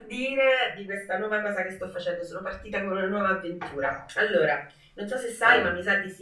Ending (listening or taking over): listening